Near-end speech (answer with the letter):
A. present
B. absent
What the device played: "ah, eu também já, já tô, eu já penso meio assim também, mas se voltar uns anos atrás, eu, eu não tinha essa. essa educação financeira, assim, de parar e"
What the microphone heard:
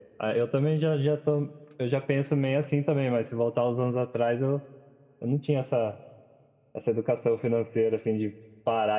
B